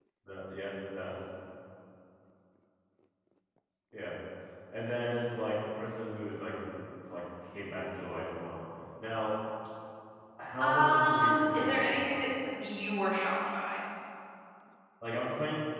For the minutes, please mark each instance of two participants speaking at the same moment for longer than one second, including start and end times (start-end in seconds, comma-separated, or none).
10.6-12.3